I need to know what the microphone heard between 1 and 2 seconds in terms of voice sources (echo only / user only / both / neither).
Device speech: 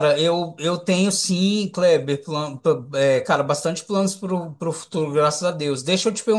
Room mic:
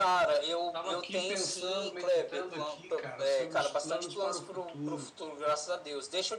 both